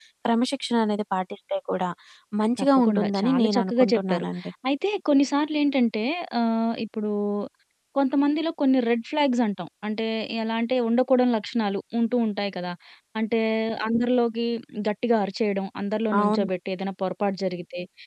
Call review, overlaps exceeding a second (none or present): present